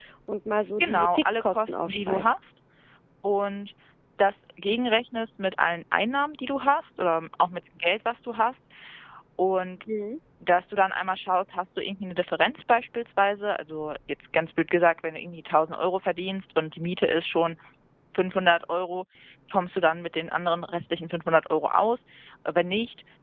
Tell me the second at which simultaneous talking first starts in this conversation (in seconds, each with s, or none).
0.8 s